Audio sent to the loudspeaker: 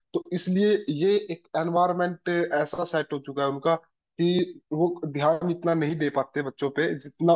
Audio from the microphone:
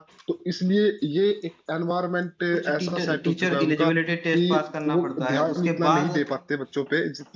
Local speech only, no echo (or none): कुछ टीचर टीचर एलिजिबिलिटी टेस्ट पास करना पड़ता है उसके बाद